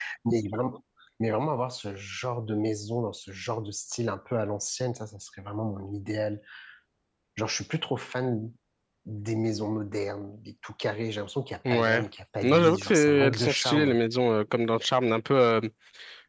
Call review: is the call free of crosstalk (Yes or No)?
No